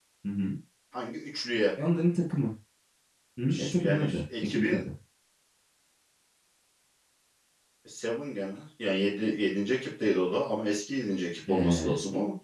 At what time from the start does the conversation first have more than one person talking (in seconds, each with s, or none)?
3.5 s